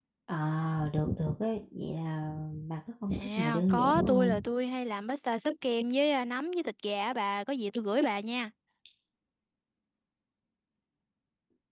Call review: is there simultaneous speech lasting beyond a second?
Yes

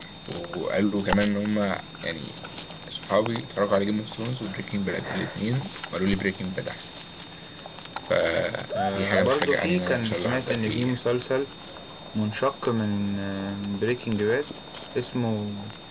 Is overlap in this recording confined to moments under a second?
No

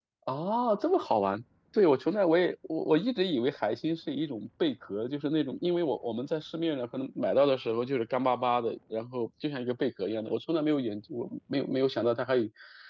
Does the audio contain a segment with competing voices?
No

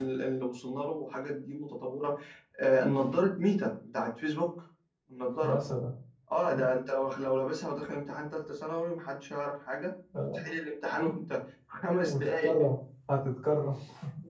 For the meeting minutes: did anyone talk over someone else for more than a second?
No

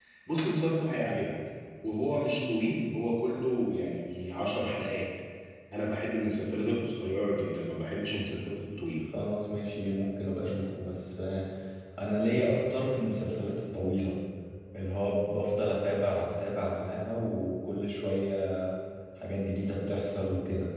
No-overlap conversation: Yes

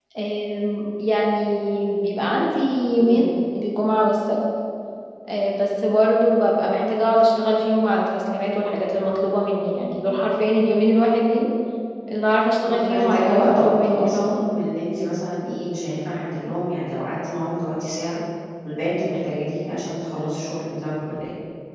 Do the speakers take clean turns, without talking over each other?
No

